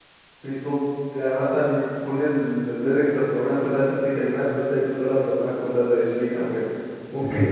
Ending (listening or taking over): listening